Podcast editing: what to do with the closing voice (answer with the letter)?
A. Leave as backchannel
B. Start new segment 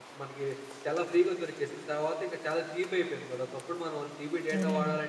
B